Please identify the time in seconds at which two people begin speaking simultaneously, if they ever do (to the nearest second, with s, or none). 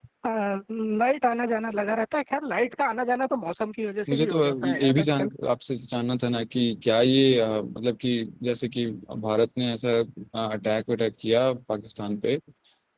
4 s